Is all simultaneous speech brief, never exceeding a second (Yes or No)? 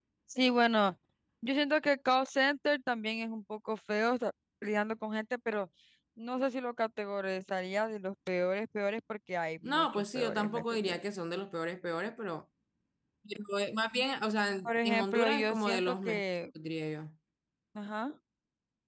No